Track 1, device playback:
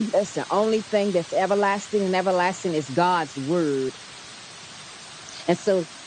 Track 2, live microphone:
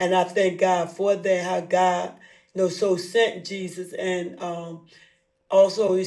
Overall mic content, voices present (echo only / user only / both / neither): user only